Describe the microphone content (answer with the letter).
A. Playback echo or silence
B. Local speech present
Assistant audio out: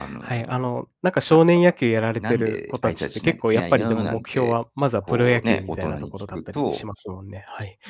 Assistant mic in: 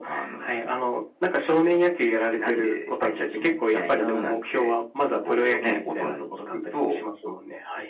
A